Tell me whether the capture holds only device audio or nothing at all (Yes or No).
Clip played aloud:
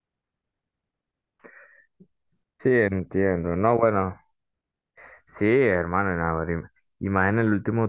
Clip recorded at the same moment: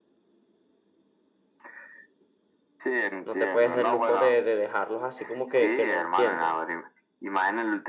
No